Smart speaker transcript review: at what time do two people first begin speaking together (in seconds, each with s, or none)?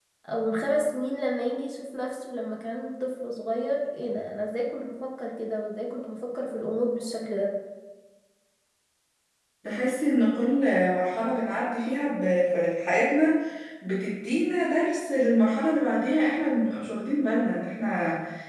none